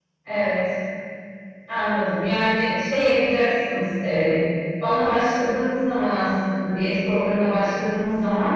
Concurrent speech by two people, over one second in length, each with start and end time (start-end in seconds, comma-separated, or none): none